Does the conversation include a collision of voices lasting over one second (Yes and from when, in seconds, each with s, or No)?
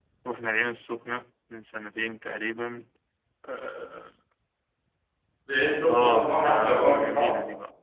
Yes, from 5.8 s